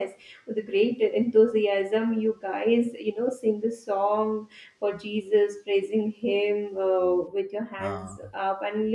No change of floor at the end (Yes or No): Yes